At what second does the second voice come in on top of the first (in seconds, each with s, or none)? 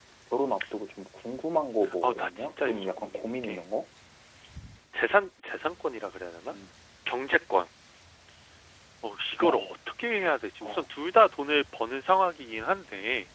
2.0 s